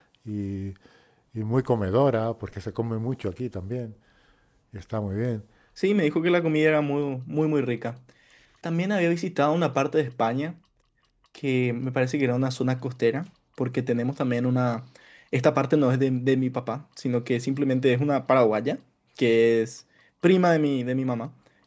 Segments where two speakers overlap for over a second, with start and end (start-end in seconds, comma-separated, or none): none